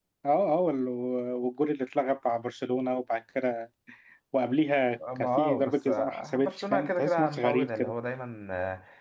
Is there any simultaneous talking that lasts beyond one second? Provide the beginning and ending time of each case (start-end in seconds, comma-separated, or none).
5.2-7.9